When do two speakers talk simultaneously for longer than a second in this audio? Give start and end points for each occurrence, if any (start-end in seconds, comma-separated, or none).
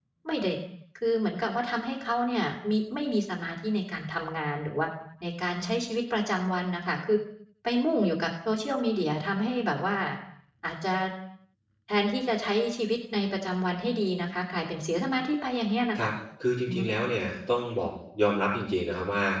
none